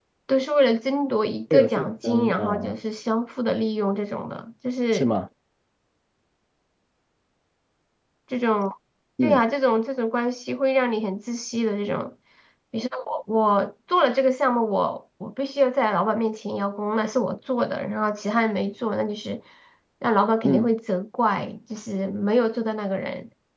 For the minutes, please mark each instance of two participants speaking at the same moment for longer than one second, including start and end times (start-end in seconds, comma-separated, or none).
1.5-2.8